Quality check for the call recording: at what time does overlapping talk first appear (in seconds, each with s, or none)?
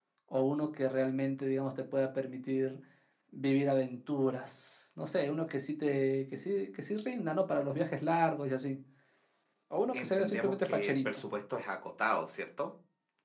9.9 s